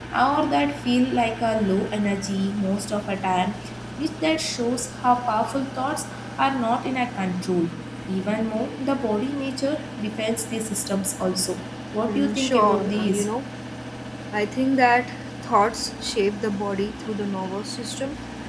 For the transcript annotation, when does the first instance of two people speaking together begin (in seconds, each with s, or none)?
12.1 s